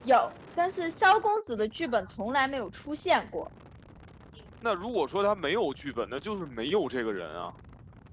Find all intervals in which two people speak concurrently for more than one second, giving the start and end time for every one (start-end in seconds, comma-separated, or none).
none